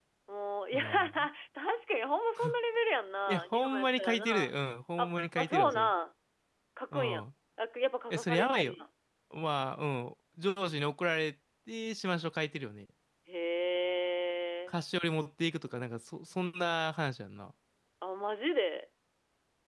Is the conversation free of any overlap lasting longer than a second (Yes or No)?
No